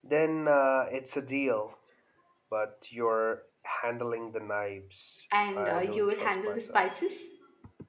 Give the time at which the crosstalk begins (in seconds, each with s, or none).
5.3 s